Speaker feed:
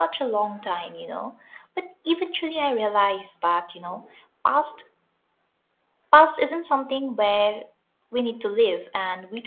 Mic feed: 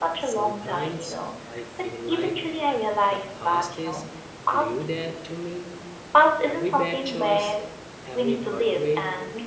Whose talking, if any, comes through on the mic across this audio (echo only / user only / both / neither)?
both